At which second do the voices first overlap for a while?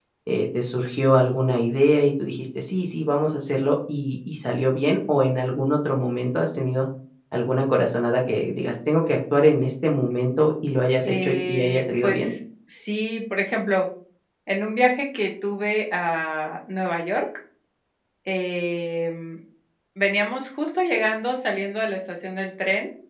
11.0 s

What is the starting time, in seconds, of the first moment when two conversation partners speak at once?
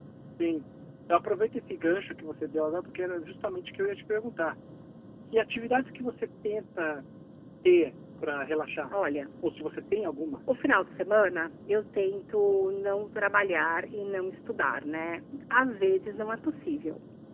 none

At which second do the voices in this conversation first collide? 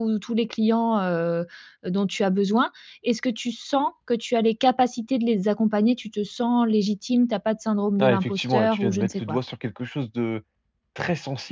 8.0 s

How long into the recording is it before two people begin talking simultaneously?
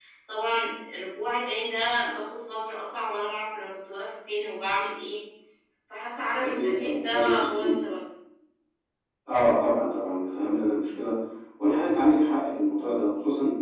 6.4 s

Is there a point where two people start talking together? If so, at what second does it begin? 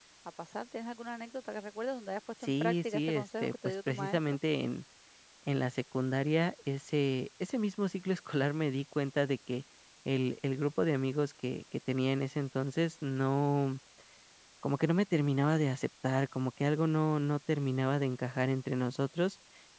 2.4 s

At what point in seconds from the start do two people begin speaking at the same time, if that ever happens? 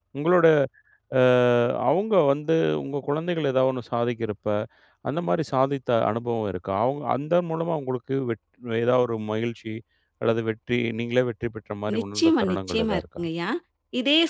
11.9 s

